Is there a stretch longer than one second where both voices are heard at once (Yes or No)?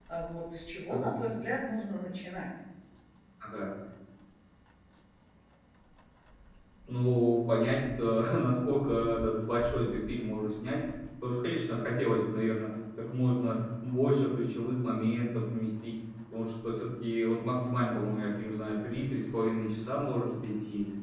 No